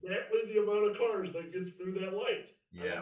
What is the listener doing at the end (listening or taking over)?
taking over